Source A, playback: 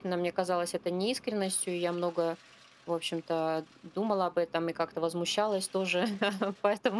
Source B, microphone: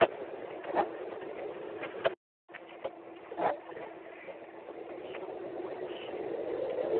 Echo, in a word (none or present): none